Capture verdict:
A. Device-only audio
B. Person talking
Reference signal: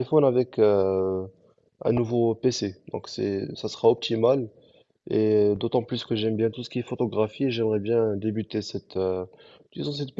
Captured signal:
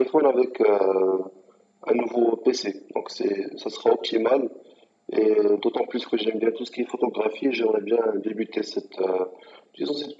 A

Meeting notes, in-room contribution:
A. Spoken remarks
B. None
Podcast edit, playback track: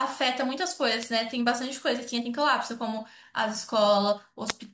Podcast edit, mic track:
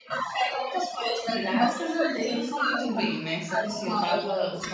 A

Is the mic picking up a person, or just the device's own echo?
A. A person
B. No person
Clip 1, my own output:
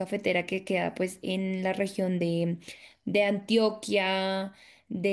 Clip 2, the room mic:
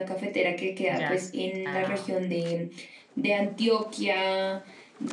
A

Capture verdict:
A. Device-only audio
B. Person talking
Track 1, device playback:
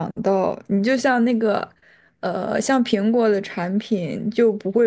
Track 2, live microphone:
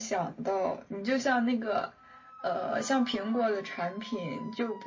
A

